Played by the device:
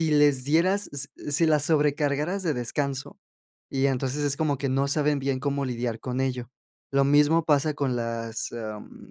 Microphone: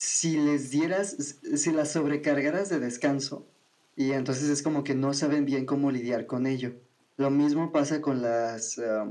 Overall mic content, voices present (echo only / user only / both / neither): echo only